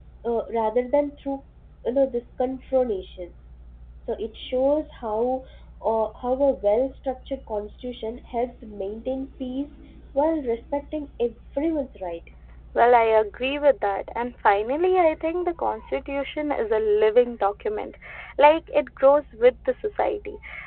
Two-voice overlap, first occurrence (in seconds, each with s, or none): none